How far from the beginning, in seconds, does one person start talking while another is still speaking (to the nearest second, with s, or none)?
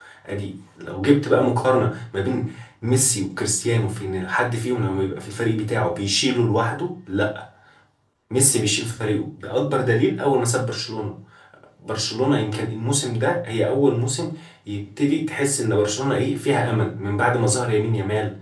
none